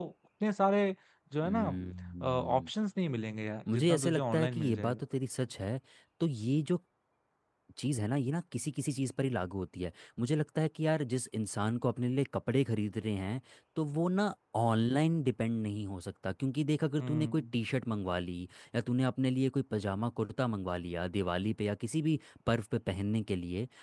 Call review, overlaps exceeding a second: present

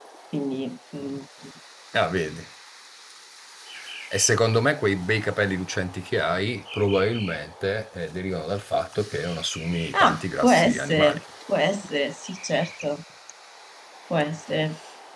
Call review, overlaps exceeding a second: present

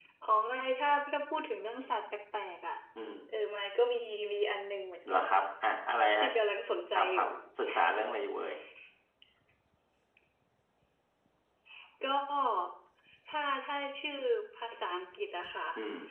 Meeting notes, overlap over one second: none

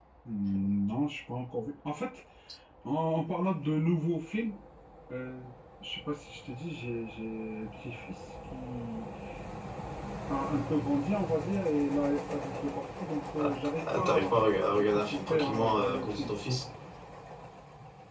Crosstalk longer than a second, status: present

